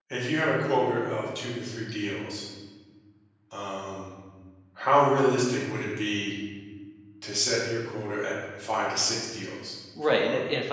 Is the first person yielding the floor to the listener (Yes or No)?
Yes